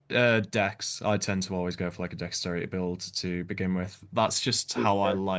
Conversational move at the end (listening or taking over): listening